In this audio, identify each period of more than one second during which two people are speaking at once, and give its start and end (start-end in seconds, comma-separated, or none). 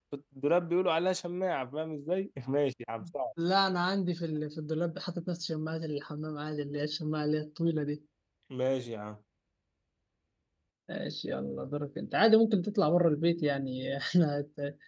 none